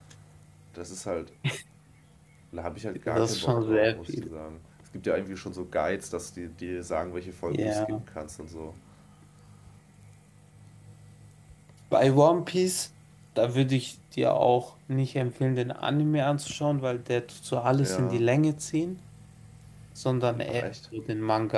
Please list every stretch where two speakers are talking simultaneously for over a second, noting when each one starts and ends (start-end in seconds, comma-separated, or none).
3.1-4.3